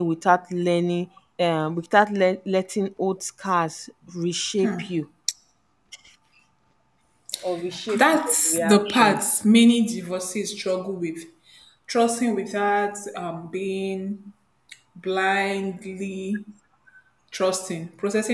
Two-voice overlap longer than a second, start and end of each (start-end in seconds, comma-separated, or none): 8.0-9.4